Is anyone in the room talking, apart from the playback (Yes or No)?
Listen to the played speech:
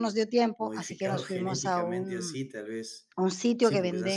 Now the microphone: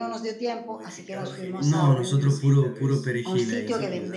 Yes